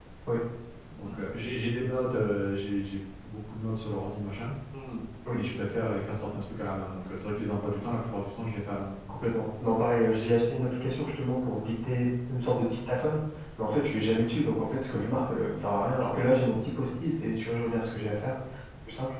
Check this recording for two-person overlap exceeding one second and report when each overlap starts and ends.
none

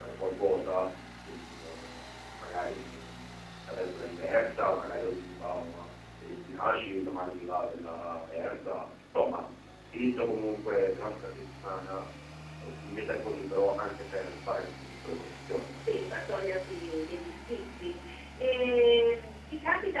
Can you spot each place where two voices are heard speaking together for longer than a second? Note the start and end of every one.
none

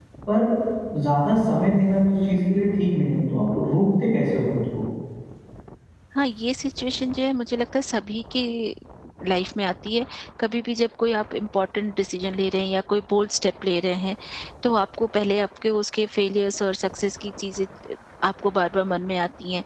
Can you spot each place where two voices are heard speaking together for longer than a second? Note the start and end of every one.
none

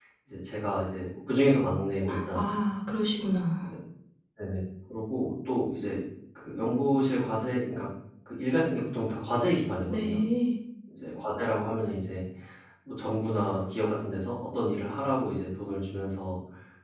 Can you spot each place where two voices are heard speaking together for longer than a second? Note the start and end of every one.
none

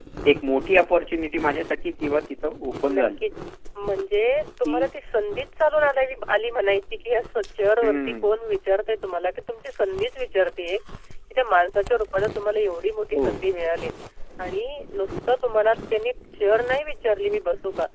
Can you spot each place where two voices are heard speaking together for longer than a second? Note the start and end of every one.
none

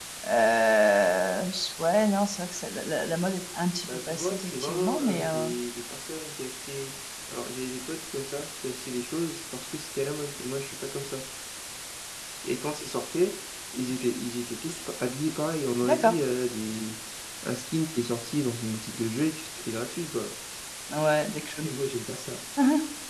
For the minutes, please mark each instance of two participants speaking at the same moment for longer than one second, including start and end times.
4.1-5.5

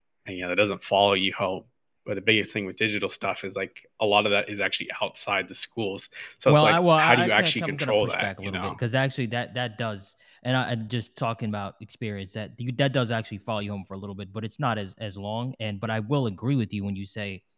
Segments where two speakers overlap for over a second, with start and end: 6.5-8.7

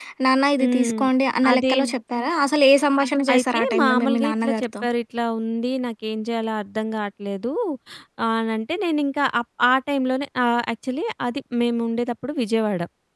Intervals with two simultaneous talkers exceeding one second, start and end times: 3.3-4.6

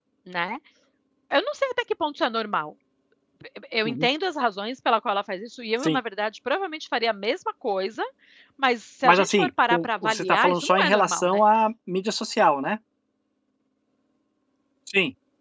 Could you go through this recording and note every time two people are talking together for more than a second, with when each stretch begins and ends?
9.0-11.4

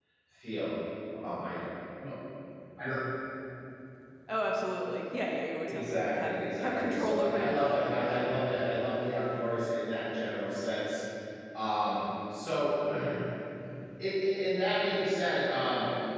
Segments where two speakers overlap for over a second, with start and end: 5.6-7.9

